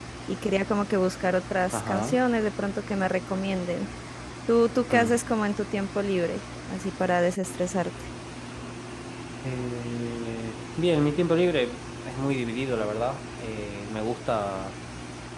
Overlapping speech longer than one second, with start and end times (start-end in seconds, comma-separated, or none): none